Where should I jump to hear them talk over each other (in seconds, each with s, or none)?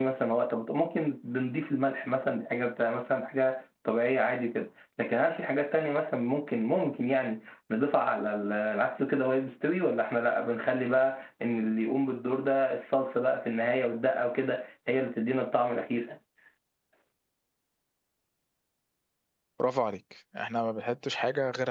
none